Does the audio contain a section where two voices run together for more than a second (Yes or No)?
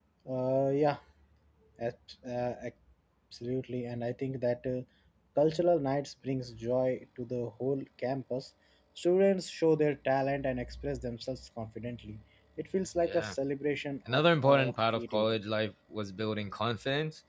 Yes